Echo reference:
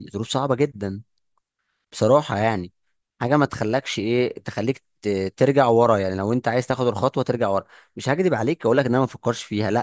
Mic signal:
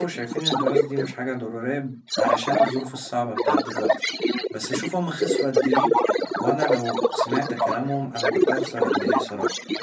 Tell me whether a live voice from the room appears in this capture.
Yes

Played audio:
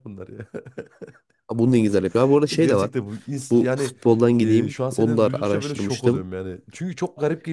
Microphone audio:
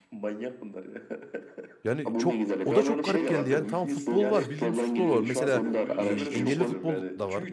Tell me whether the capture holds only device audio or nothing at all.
No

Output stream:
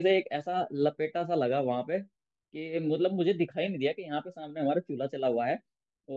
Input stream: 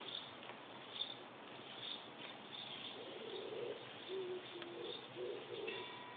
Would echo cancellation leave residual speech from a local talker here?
No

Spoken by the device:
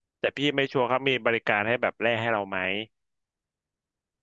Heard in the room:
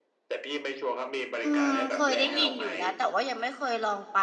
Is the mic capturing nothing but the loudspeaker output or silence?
No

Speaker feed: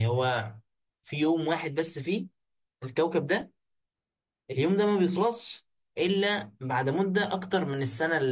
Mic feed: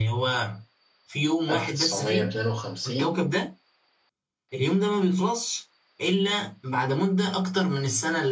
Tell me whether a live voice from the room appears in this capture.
Yes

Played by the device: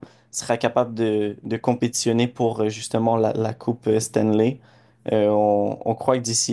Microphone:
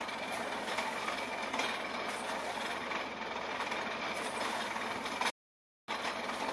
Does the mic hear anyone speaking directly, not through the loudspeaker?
No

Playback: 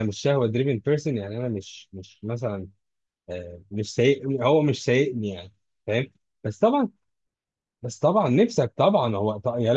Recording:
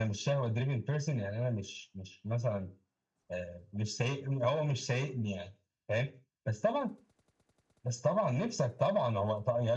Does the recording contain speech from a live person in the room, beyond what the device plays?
No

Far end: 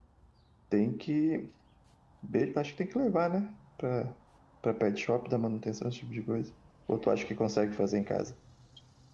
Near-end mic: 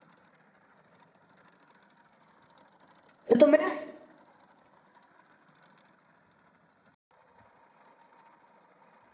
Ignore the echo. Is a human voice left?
Yes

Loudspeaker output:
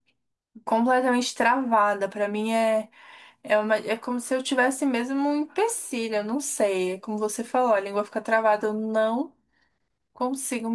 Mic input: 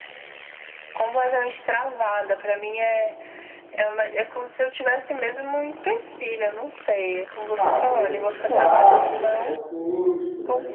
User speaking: Yes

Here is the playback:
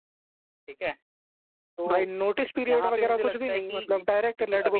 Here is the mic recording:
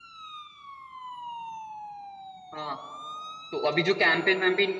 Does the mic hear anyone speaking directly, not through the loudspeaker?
Yes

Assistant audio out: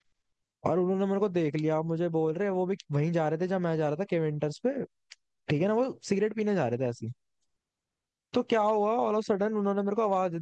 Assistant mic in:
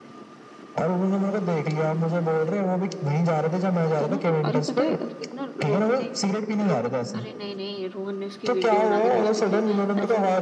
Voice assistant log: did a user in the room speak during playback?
Yes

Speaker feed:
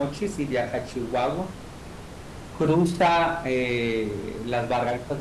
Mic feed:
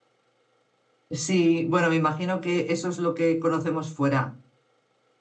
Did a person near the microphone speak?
Yes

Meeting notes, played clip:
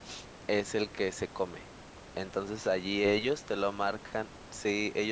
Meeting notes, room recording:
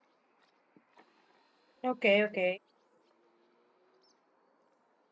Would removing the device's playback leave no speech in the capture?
No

